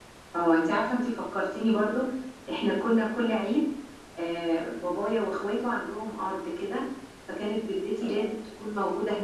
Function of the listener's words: listening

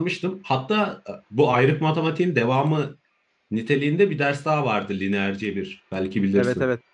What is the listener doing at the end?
taking over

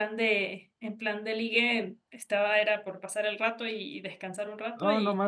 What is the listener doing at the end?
taking over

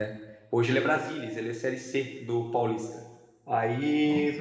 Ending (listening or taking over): listening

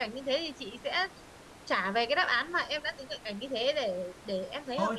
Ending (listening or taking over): taking over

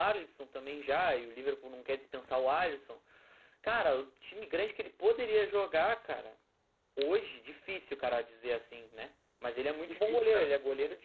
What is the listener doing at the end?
listening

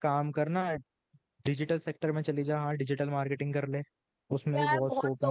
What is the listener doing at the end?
taking over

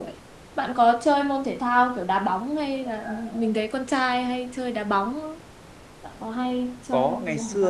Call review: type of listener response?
taking over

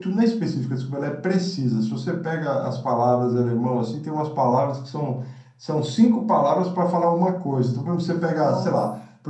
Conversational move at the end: listening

